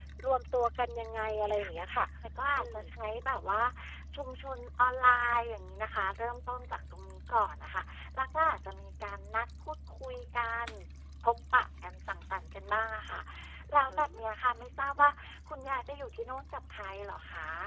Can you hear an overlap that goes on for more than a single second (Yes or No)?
No